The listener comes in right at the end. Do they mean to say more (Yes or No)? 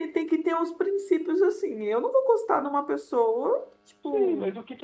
Yes